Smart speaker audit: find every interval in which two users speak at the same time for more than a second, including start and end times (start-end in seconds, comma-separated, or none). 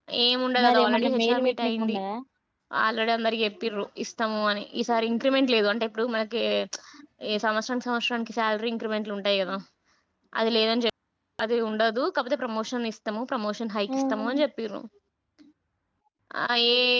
0.6-2.0